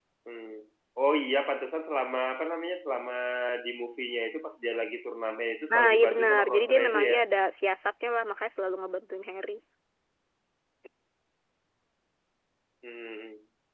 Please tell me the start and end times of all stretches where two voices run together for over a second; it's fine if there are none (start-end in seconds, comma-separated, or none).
5.7-7.2